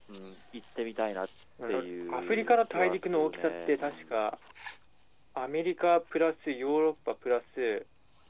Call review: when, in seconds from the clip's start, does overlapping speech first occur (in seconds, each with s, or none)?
1.6 s